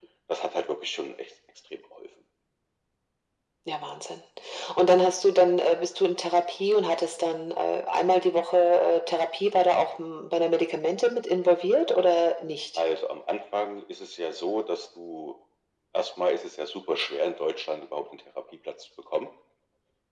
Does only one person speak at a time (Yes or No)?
Yes